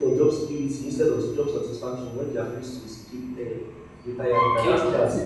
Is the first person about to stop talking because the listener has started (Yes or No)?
Yes